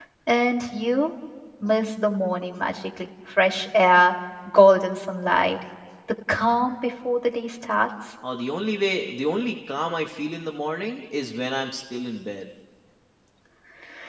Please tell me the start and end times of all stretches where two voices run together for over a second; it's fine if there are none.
none

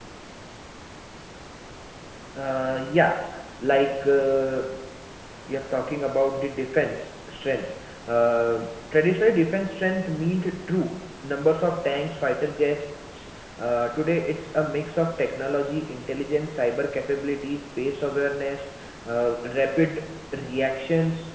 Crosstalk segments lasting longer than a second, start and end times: none

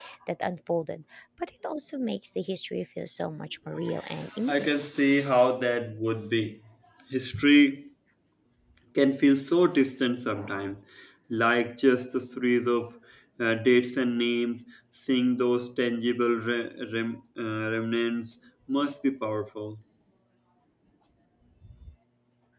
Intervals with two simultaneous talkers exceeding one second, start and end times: none

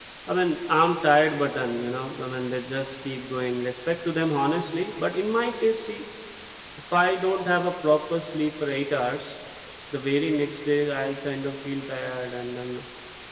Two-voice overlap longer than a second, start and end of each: none

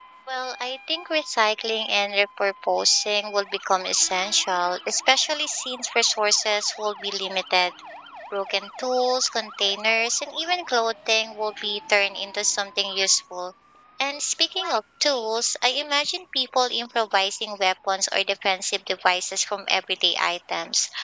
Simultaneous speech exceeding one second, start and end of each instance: none

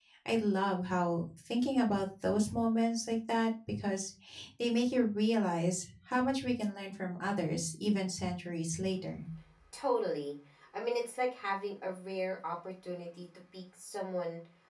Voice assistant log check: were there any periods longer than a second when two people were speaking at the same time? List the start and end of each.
none

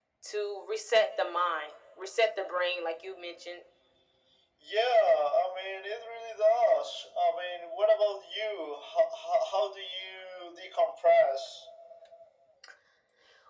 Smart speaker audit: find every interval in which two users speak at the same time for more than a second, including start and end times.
none

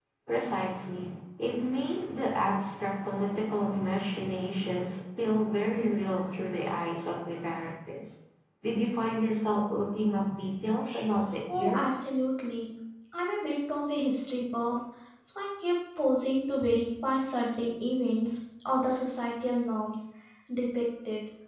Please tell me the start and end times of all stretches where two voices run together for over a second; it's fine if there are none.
none

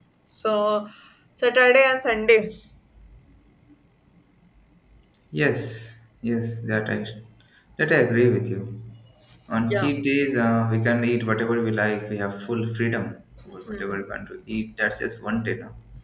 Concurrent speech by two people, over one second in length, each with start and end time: none

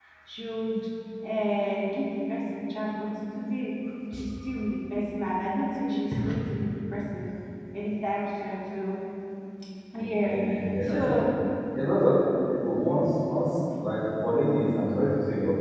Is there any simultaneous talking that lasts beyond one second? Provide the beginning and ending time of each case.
none

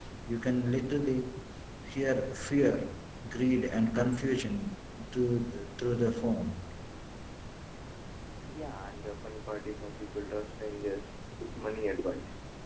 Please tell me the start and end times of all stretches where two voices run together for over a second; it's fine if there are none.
none

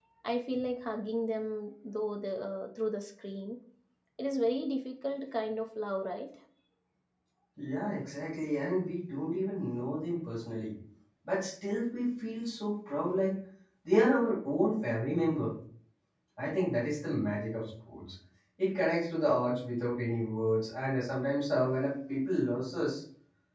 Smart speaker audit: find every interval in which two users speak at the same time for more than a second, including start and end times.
none

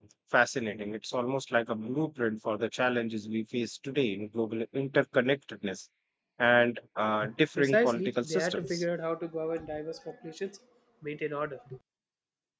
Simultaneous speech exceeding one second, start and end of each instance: 7.6-8.8

